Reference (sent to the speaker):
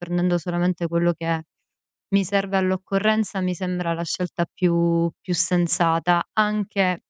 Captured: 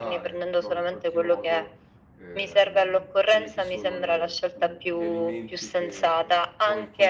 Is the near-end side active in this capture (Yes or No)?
Yes